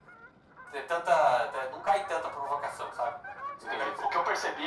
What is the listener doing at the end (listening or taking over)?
taking over